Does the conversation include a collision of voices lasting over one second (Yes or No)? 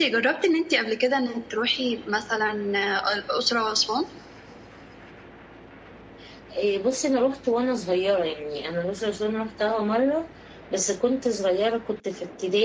No